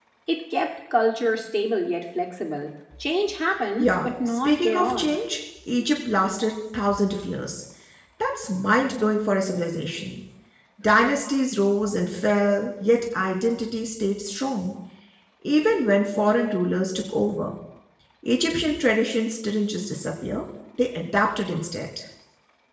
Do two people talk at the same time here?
Yes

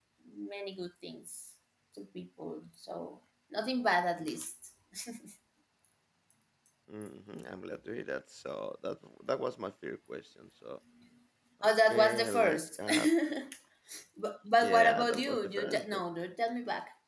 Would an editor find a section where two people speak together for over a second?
Yes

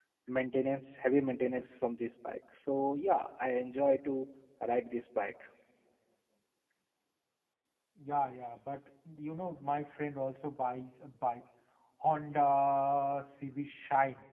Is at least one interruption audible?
No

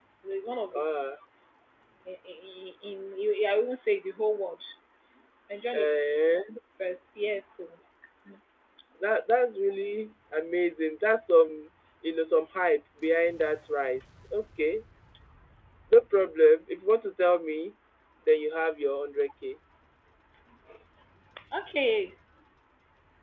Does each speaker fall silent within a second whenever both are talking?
Yes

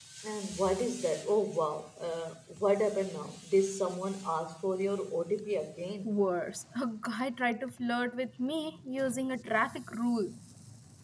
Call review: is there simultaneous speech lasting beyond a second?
No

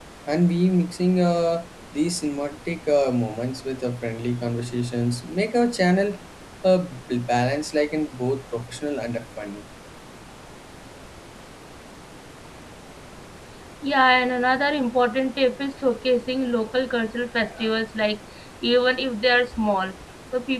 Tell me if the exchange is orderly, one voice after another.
Yes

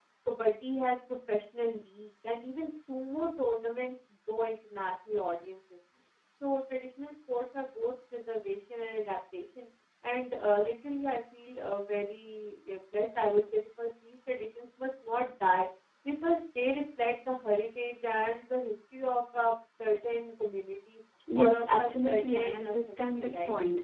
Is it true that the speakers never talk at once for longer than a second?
No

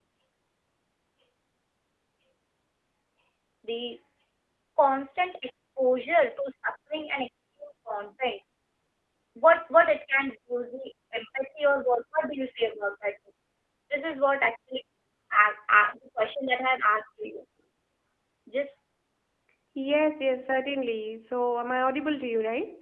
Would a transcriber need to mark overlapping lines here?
No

